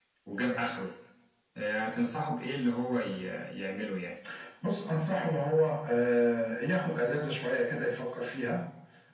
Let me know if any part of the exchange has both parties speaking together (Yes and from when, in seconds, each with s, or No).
No